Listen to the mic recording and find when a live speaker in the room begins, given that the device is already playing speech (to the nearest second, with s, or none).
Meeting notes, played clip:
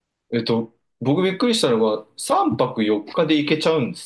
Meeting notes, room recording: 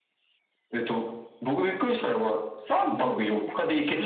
3 s